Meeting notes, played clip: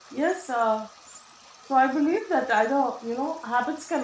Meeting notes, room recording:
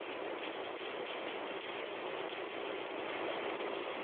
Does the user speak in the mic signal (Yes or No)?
No